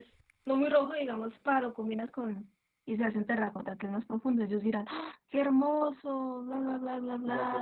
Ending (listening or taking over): taking over